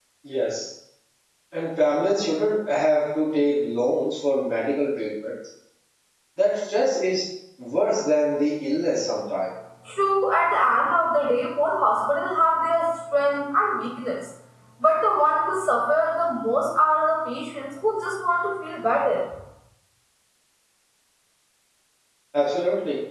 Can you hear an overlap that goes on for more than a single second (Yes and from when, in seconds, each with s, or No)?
No